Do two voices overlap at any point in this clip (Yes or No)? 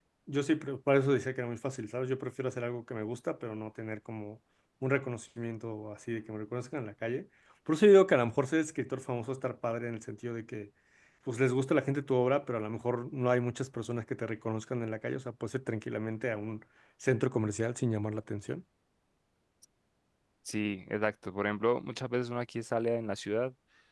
No